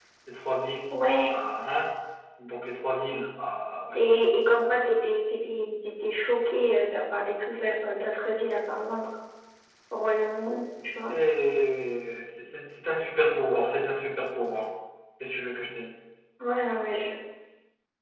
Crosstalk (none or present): none